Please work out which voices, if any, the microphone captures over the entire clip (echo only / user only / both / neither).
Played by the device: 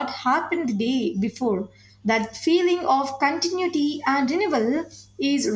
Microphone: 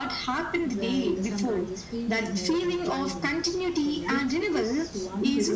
both